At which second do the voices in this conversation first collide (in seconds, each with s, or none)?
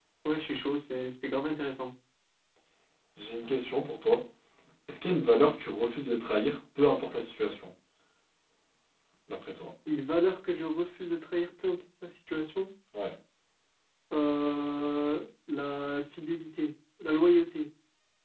none